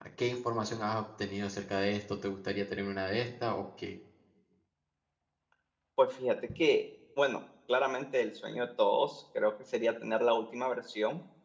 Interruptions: none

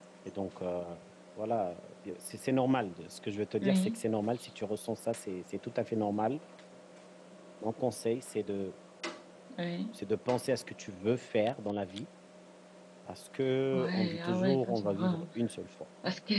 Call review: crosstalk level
present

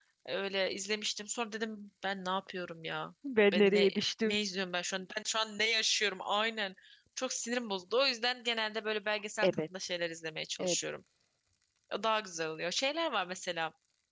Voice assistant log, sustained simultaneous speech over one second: none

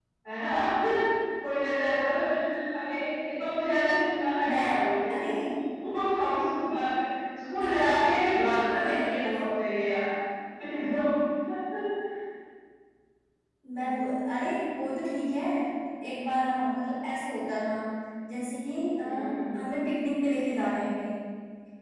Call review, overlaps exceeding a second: none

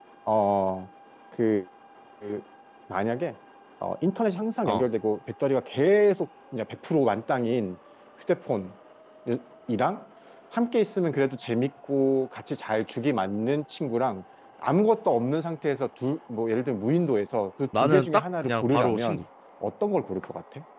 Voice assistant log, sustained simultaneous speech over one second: present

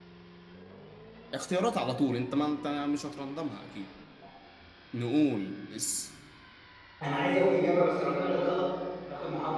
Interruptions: none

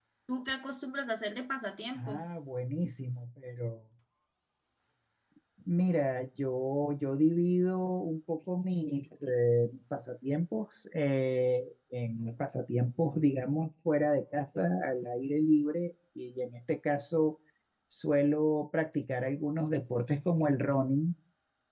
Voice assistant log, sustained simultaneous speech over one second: none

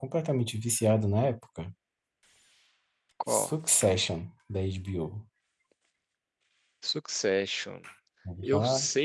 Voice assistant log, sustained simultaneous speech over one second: none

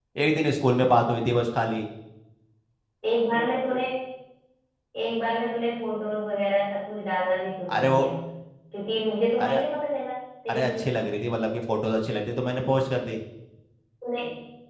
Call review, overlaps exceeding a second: none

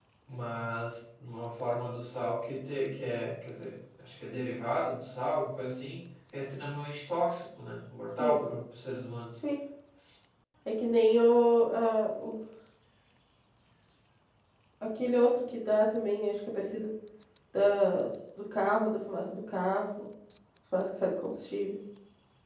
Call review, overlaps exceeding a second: none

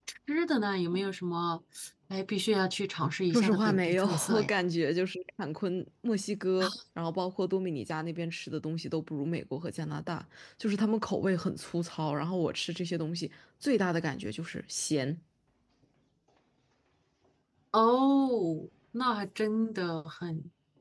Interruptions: present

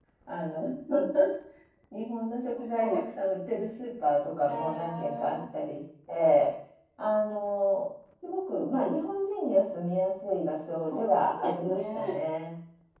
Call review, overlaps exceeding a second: present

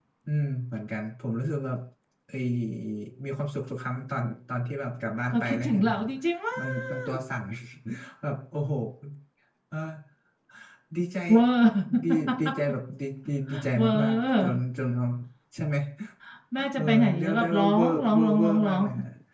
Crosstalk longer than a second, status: present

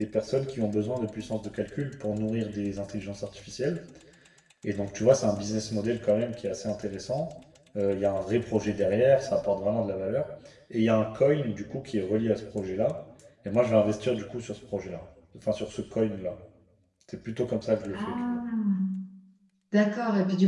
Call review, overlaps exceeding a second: none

